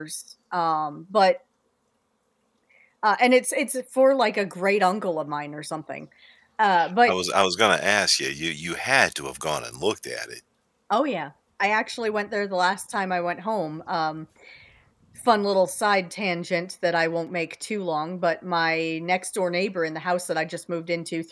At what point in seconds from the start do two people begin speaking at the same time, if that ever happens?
none

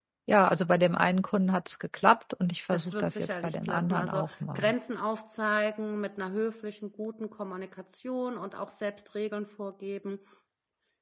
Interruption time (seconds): 2.7 s

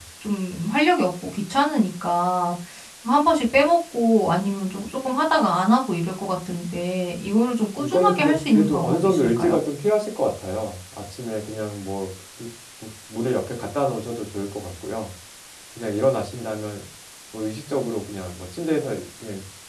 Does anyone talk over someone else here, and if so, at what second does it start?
7.8 s

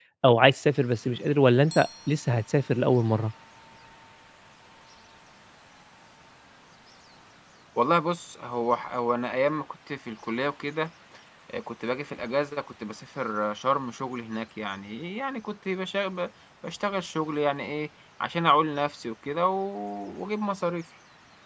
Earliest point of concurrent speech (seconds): none

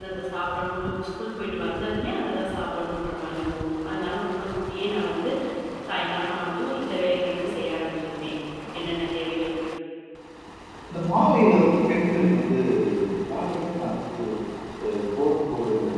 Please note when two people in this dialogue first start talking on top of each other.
none

